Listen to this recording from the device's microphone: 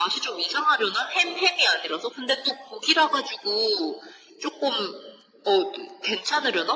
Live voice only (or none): none